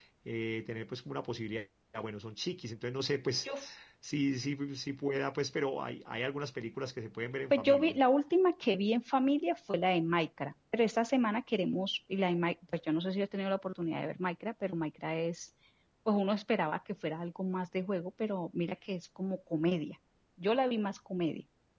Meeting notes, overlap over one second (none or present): none